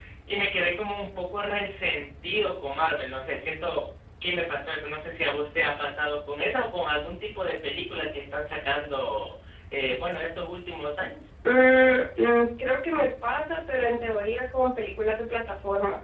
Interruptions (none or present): none